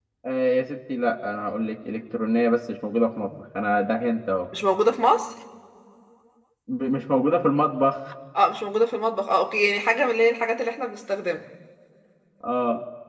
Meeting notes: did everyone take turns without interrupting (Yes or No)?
Yes